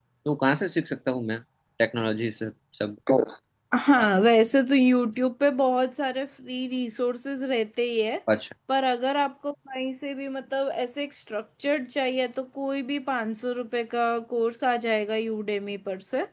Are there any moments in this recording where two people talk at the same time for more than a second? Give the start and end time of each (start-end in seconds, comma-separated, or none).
none